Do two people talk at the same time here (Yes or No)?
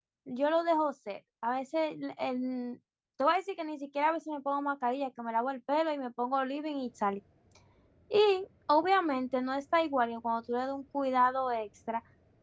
No